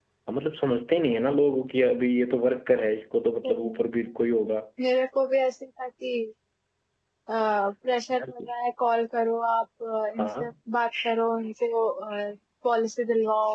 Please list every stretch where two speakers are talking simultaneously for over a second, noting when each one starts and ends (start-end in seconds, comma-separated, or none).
none